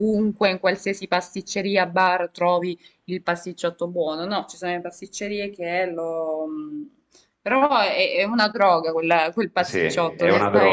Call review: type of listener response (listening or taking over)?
taking over